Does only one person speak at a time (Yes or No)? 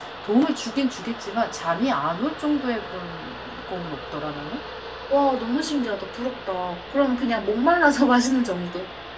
Yes